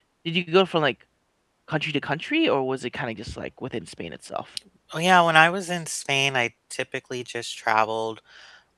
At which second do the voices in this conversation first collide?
none

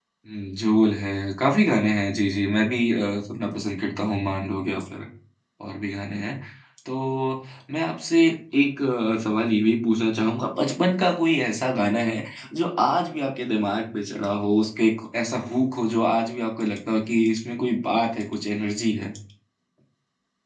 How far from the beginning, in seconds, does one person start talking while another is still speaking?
none

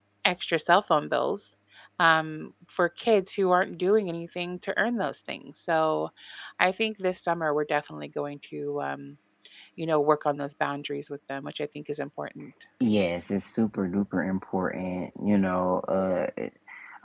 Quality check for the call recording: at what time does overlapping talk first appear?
none

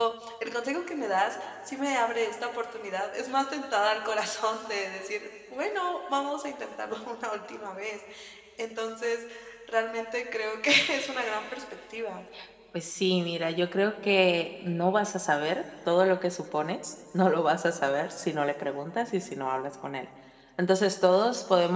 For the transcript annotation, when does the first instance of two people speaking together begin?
none

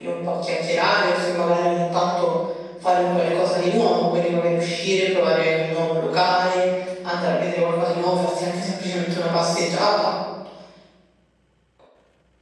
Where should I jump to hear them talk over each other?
none

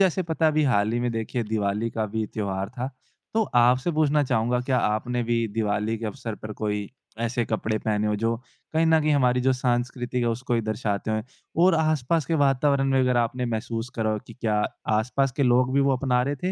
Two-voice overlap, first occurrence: none

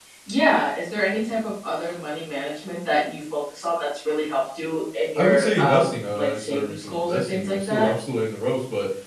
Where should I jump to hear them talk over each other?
5.2 s

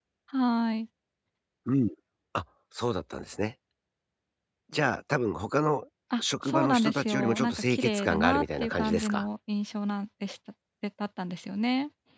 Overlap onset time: 6.2 s

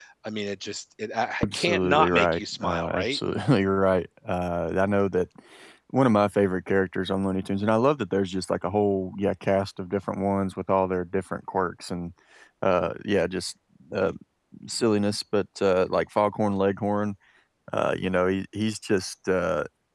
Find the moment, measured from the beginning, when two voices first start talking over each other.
1.4 s

